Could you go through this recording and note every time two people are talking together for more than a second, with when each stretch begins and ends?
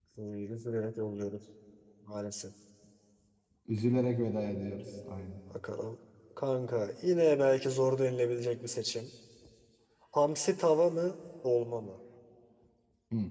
none

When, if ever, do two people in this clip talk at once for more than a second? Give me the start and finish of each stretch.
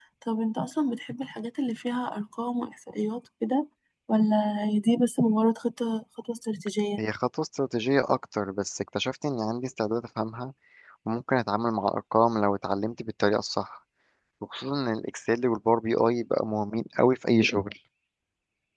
none

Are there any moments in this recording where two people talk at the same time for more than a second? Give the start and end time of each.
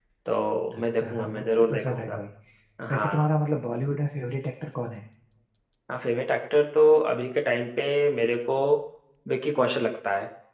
0.8-2.2

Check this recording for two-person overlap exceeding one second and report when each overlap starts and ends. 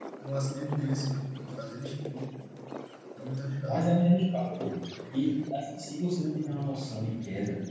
none

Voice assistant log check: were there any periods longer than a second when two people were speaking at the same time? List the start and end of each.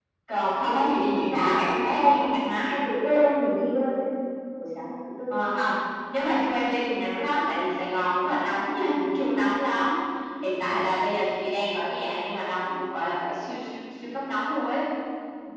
0.7-2.1

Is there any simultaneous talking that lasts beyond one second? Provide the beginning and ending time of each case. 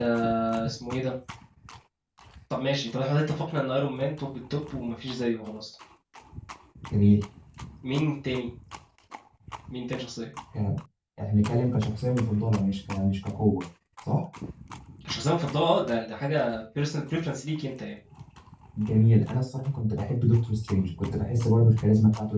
none

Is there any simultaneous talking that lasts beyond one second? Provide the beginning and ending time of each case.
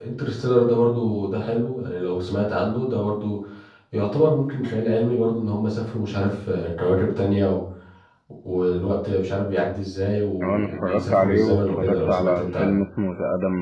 10.4-12.8

